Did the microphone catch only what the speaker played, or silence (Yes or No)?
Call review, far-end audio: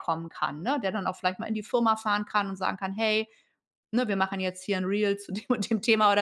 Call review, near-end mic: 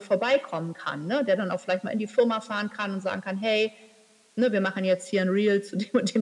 Yes